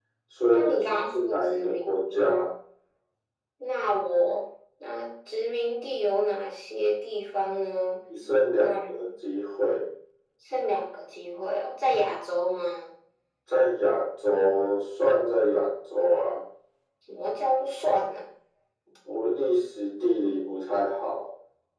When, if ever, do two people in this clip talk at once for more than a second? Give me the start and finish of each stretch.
0.5-2.2

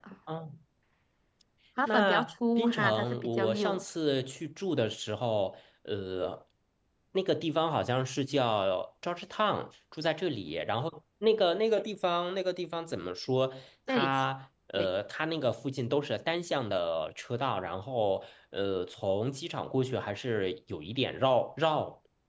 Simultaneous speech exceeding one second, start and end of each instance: 1.9-3.8

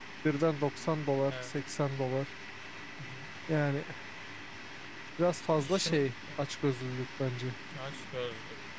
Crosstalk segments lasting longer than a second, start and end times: none

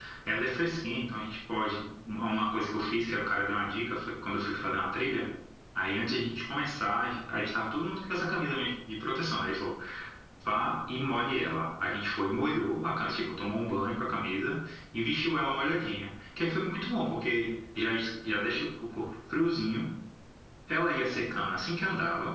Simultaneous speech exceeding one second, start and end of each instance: none

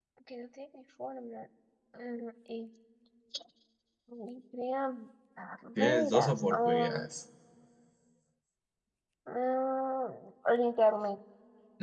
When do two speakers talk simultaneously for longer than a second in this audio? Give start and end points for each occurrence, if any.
5.8-7.1

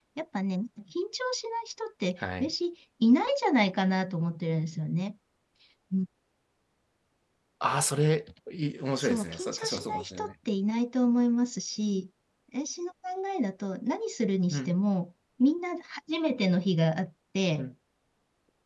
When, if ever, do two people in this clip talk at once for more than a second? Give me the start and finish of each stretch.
9.0-10.3

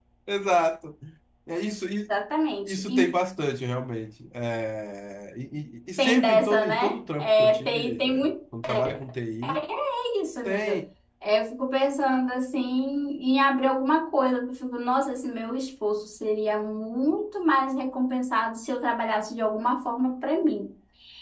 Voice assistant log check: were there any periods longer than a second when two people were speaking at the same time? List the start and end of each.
6.0-8.3

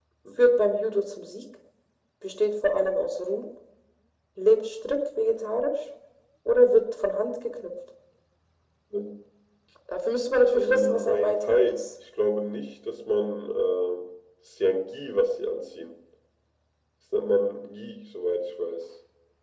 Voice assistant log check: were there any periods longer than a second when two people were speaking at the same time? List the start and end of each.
10.5-11.8

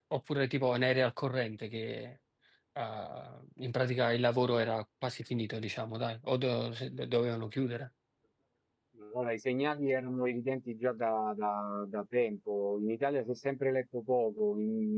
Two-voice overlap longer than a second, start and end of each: none

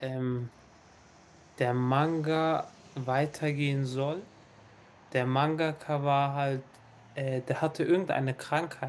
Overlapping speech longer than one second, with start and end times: none

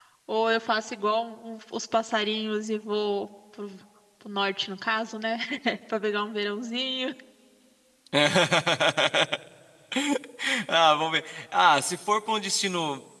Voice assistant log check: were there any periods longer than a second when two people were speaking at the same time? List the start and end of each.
none

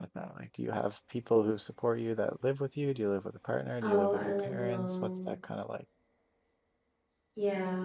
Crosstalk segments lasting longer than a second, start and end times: 3.8-5.3

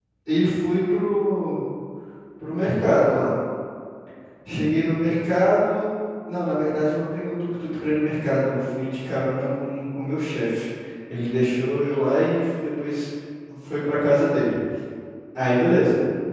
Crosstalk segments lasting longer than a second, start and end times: none

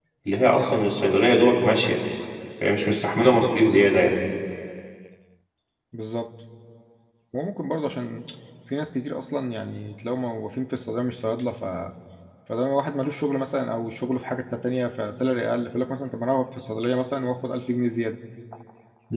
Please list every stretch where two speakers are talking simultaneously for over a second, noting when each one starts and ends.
none

